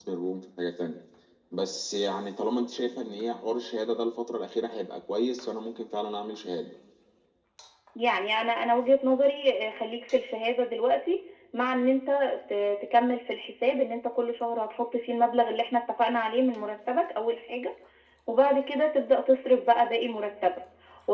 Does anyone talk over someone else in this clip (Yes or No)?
No